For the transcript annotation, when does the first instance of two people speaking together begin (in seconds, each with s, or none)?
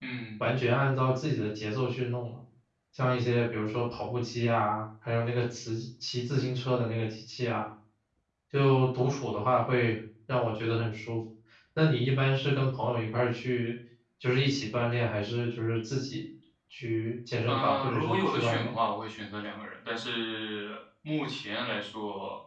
17.5 s